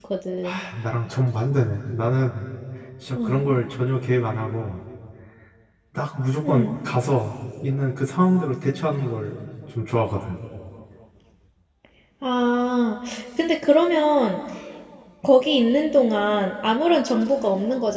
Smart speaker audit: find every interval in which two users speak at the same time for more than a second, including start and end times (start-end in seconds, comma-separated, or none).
none